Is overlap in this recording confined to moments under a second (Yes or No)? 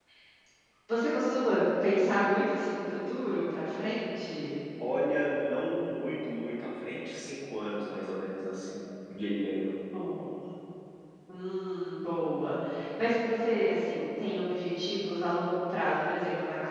Yes